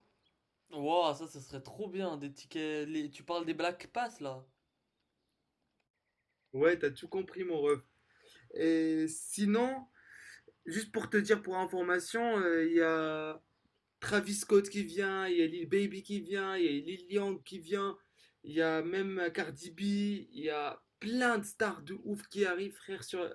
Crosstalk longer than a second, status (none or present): none